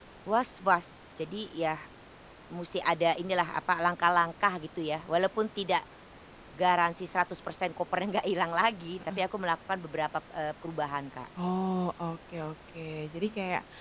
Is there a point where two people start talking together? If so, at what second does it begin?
none

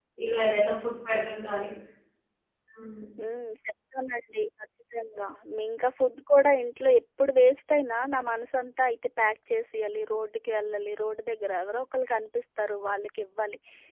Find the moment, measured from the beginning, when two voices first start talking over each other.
none

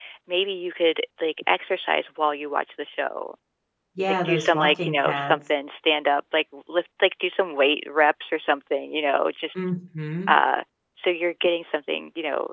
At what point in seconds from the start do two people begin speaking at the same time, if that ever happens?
4 s

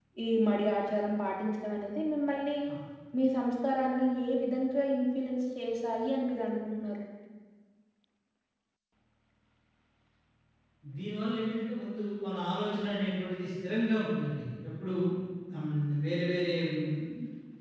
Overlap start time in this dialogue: none

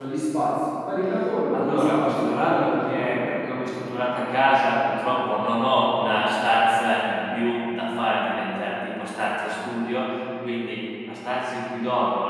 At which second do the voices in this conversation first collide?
2 s

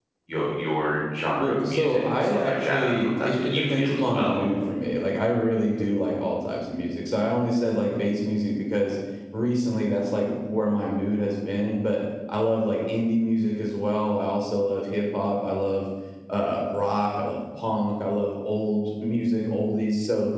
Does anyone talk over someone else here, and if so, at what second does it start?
1 s

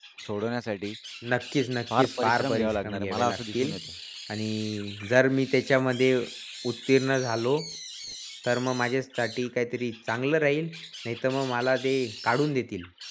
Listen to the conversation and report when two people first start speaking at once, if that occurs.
2 s

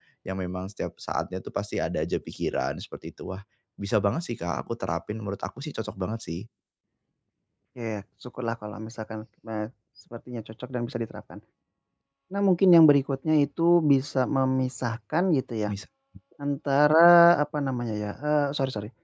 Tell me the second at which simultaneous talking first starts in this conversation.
none

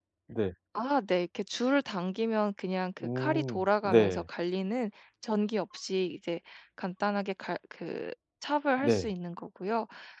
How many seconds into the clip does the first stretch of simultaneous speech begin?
3 s

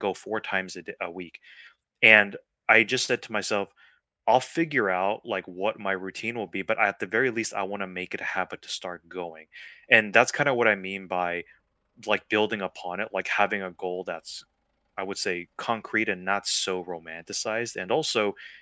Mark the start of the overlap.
none

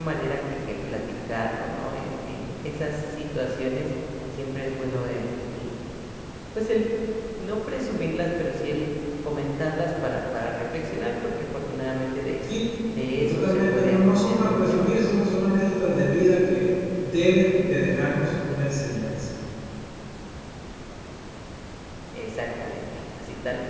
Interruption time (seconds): 13 s

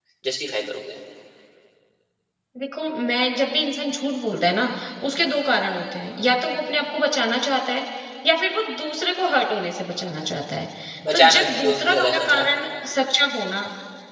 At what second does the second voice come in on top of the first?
11 s

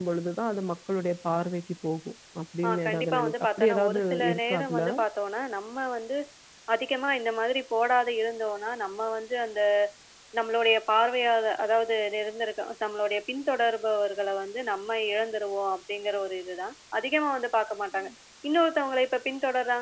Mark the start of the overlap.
3 s

